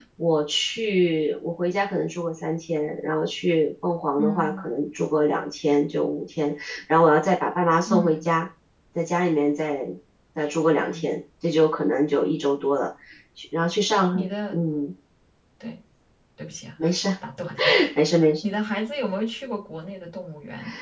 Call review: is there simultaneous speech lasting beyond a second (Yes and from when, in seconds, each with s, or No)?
No